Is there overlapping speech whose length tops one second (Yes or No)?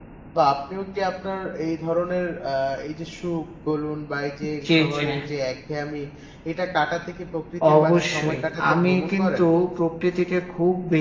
Yes